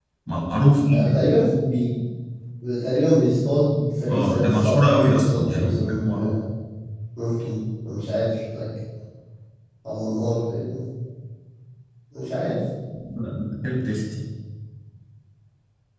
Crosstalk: present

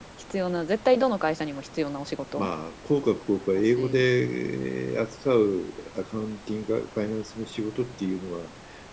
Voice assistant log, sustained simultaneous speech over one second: none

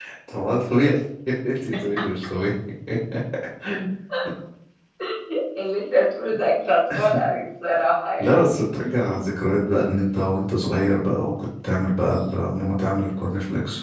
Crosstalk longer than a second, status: none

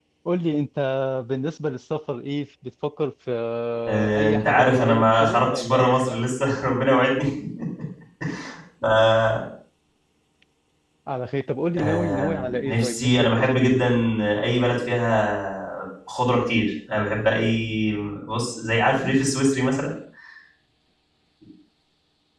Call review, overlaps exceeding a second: present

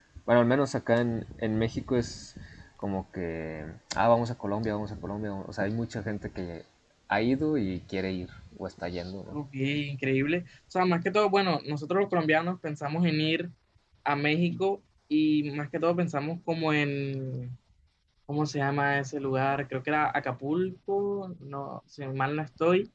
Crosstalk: none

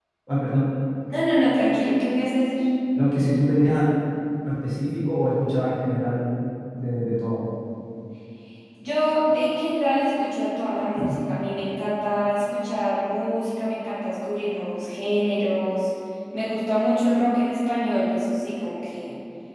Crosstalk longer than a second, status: none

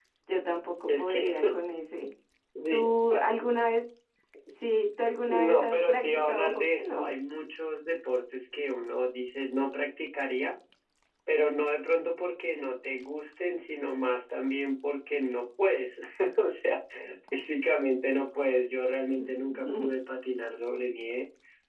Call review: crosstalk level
present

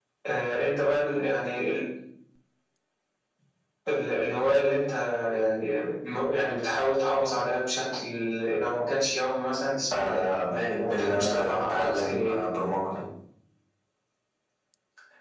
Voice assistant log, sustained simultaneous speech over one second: present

